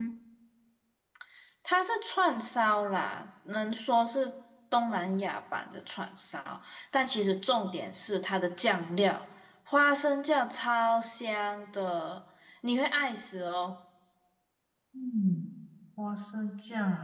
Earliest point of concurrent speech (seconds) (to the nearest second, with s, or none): none